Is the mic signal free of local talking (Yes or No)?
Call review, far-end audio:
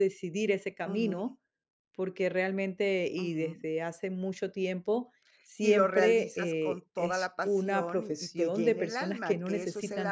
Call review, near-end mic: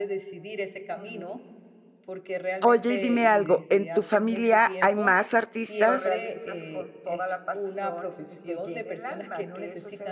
No